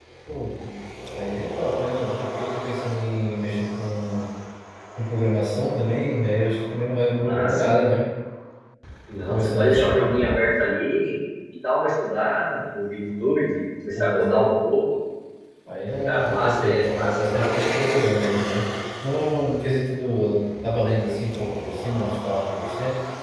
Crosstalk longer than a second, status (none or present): present